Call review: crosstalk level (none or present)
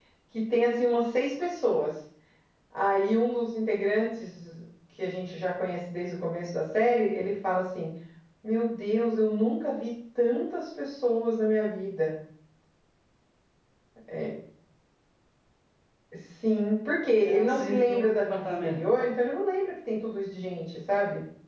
present